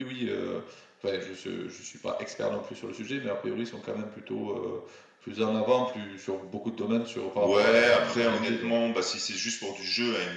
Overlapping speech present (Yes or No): Yes